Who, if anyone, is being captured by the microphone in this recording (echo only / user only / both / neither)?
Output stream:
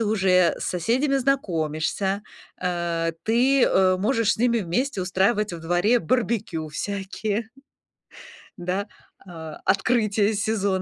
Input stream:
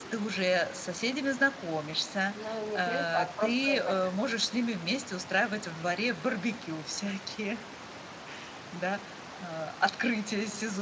both